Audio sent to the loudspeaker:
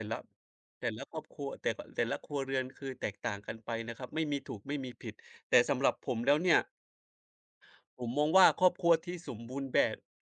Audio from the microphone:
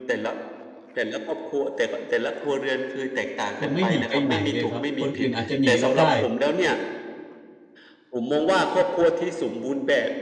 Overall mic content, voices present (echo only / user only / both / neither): both